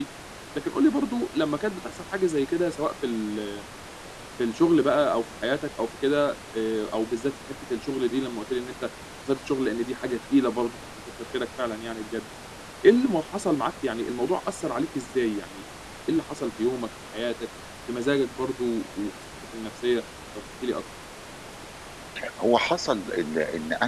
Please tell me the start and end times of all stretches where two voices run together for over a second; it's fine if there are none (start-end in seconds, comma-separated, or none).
none